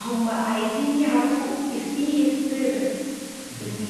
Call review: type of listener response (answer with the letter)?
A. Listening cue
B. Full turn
A